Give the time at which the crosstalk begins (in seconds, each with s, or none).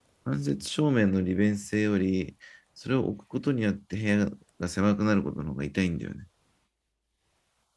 none